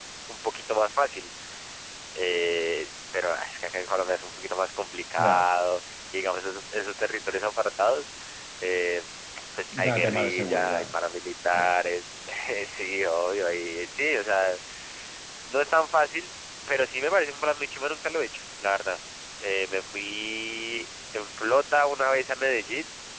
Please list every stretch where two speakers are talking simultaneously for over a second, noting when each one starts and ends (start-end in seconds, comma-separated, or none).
9.7-10.9